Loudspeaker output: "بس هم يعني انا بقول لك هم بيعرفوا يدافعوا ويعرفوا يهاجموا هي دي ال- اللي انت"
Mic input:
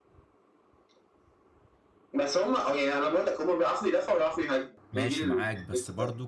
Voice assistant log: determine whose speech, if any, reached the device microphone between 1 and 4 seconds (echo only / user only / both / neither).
echo only